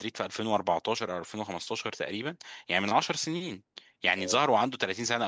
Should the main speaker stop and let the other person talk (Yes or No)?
No